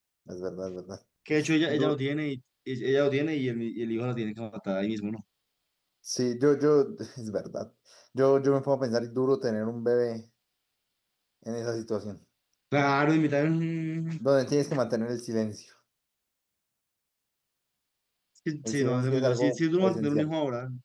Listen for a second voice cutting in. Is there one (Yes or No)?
Yes